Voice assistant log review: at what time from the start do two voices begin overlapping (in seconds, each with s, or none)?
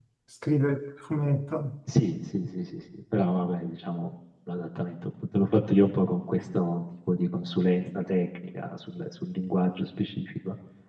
none